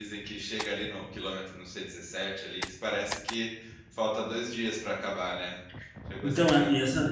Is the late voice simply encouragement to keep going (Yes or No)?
No